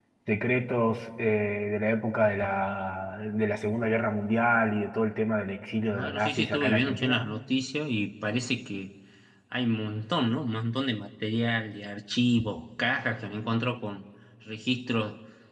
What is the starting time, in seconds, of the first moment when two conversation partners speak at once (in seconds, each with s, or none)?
5.9 s